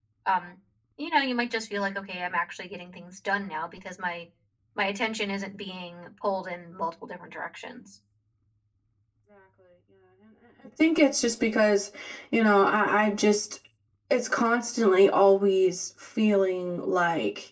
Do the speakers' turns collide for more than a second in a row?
No

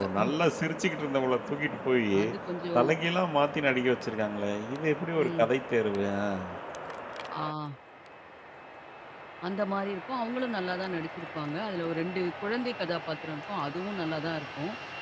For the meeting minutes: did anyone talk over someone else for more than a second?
No

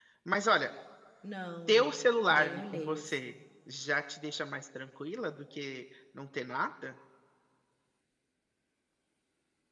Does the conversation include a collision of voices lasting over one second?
Yes, from 1.7 s

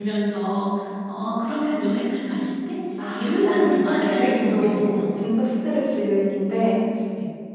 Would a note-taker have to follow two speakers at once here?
Yes, from 3.0 s

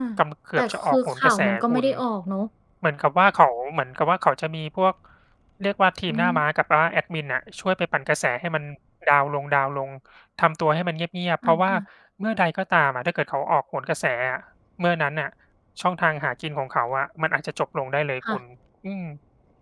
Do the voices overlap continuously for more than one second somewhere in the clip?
Yes, from 0.6 s

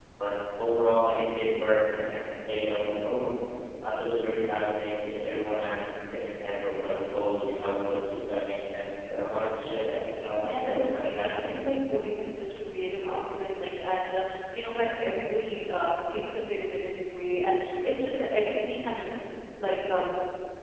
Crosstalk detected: Yes, from 10.4 s

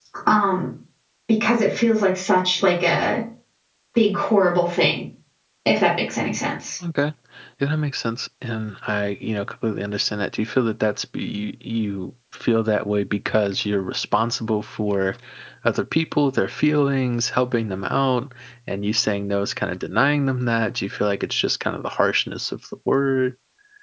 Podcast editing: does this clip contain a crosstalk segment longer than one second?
No

